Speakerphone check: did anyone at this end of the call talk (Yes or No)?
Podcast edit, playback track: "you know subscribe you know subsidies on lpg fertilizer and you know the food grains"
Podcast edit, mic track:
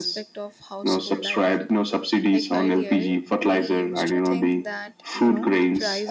Yes